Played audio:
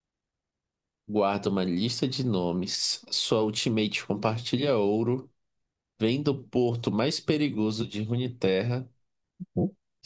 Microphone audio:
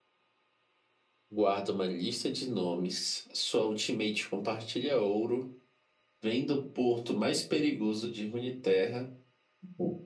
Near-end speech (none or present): none